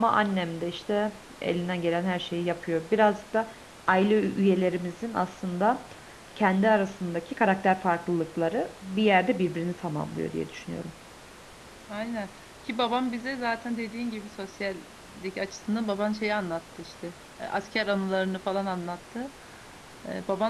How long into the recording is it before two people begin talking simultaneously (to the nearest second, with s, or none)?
none